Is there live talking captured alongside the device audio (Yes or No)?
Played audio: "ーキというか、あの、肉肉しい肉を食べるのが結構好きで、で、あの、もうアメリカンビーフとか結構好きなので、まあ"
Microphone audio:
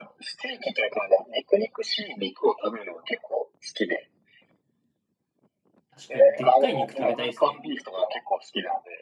Yes